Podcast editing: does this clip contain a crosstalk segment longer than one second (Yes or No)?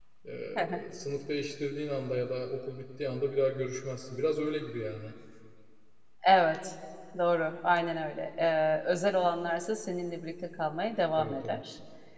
No